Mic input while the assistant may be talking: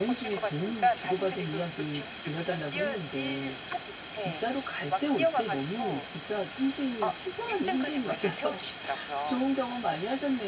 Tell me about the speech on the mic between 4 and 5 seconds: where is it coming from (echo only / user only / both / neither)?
both